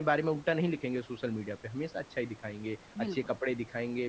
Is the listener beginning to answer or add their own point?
No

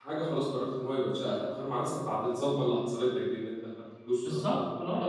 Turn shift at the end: Yes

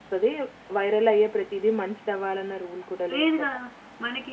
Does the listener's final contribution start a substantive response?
Yes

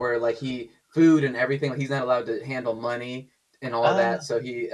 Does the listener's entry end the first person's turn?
No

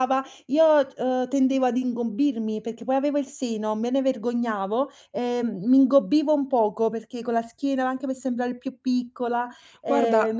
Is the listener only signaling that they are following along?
No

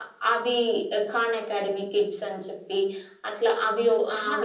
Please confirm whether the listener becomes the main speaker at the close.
No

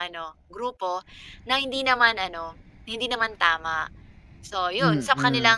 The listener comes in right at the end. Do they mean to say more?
No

